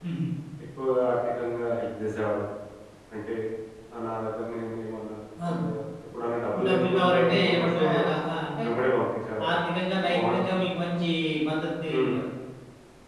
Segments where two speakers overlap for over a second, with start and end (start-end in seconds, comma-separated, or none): 6.7-7.9